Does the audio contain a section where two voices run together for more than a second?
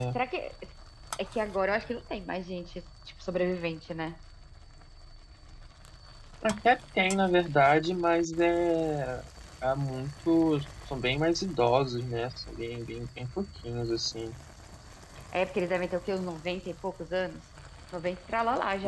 No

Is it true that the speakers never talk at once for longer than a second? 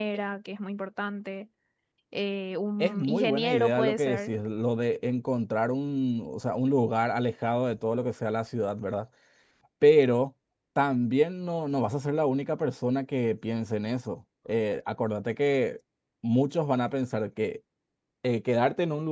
No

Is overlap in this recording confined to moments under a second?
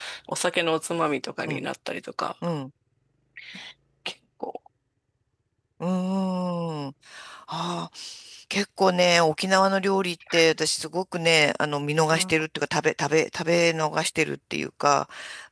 Yes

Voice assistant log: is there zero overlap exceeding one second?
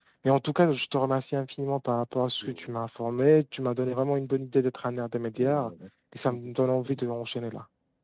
Yes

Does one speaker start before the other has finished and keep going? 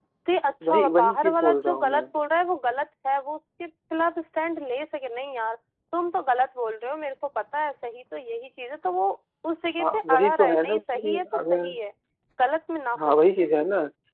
Yes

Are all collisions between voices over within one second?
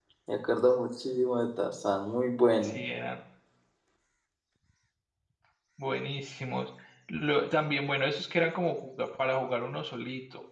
Yes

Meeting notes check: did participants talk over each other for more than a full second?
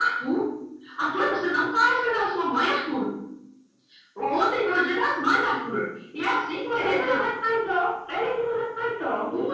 No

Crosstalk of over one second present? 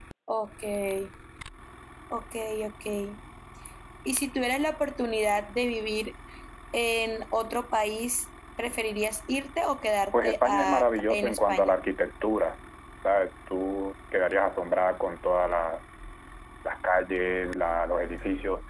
Yes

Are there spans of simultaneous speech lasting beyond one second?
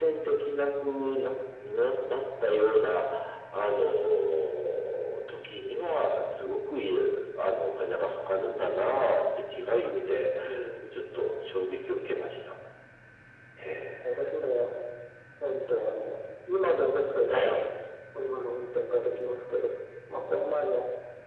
No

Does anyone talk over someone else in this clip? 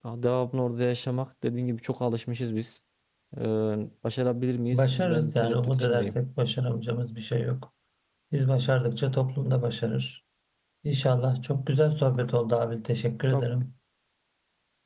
Yes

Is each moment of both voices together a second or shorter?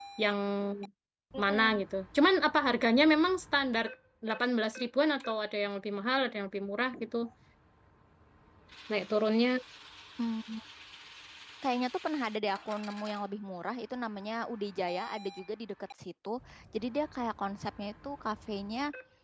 Yes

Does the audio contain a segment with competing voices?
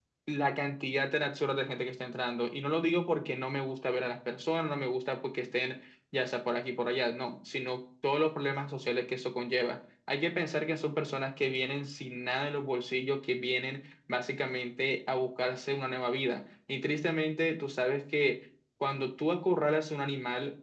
No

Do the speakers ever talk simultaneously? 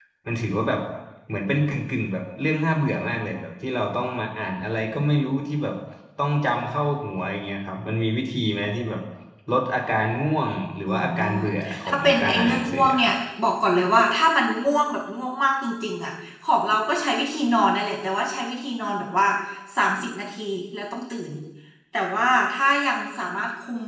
Yes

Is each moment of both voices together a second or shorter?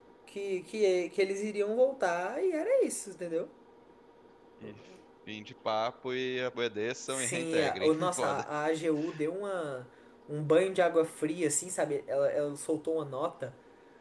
No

